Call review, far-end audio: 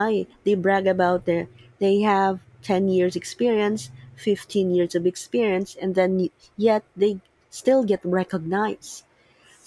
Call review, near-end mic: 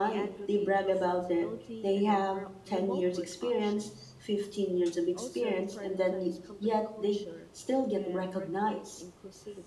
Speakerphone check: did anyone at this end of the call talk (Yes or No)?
Yes